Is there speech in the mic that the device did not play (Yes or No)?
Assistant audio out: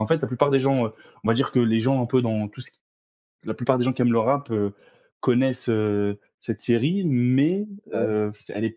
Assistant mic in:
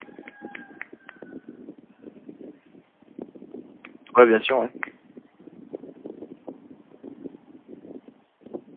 Yes